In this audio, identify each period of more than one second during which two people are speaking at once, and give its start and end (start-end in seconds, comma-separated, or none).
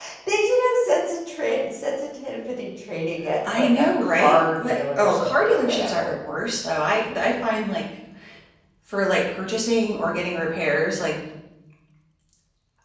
3.5-6.2